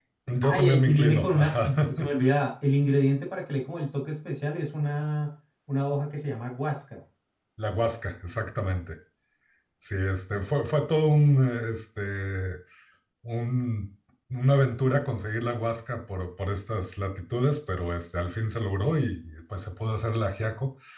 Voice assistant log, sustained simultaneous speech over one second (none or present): present